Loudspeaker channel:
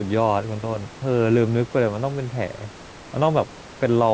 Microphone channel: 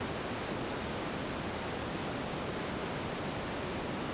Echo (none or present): none